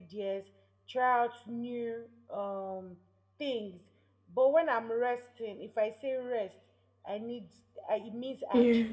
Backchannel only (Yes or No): Yes